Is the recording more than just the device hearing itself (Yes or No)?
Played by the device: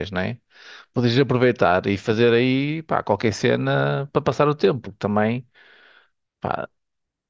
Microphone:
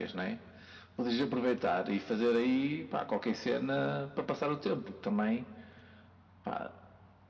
No